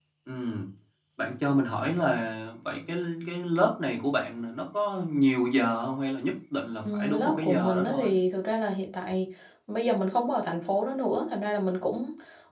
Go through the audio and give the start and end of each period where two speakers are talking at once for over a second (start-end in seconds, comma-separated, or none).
6.8-8.1